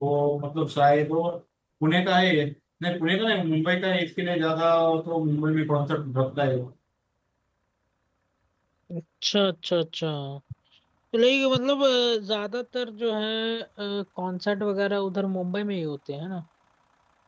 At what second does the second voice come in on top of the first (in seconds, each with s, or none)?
none